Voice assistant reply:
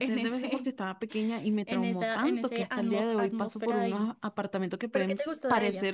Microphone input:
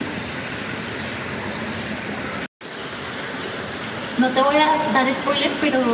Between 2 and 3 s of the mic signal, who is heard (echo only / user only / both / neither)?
neither